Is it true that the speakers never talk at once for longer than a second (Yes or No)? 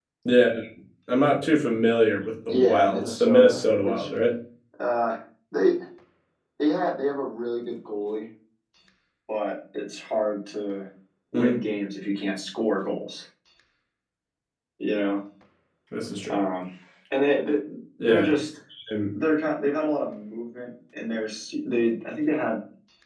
No